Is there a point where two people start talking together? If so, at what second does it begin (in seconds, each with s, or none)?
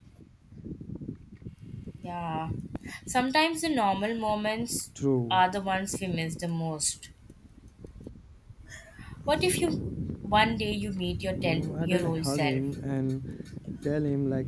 11.4 s